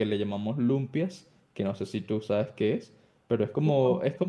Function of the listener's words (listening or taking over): listening